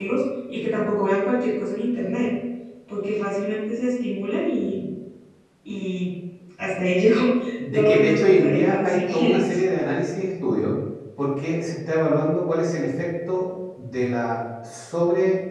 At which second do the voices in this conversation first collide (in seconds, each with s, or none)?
7.6 s